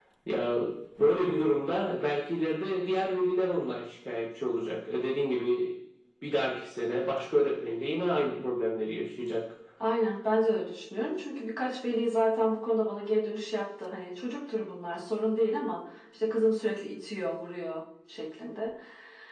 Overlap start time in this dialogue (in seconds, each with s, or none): none